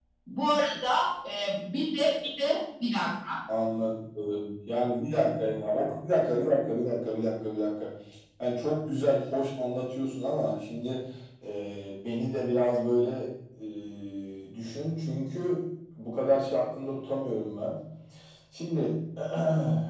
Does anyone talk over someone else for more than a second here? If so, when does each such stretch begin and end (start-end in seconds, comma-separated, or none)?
none